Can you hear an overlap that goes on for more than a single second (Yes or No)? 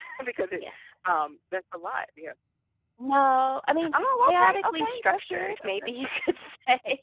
Yes